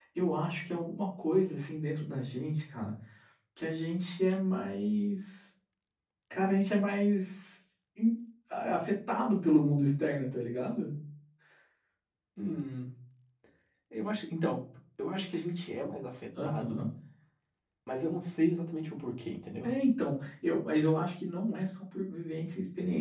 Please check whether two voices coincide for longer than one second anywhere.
No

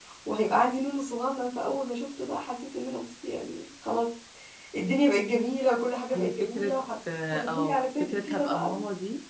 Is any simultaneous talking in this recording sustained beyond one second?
Yes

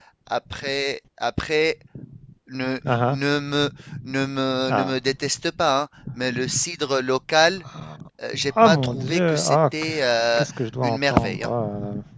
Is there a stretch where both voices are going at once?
Yes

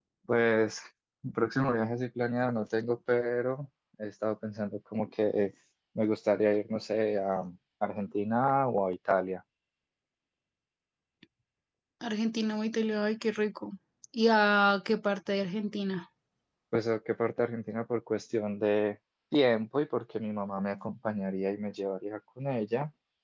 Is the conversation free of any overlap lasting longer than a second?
Yes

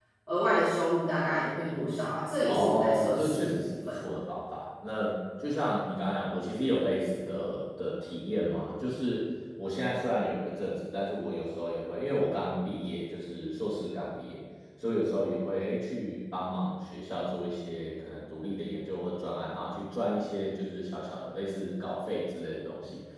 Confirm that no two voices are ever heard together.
No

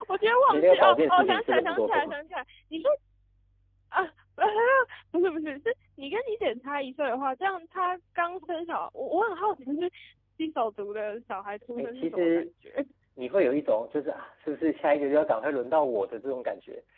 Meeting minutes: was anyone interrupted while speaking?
Yes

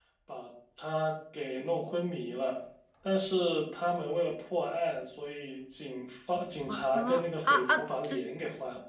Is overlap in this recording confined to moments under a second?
No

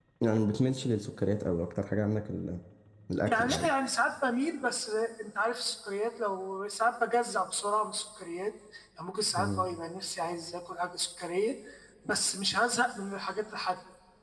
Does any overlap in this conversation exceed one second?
No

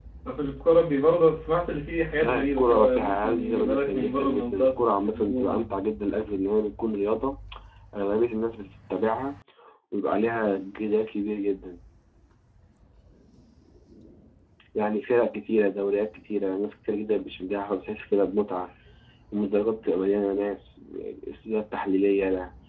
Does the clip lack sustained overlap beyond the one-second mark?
No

